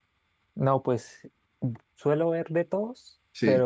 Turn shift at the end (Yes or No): No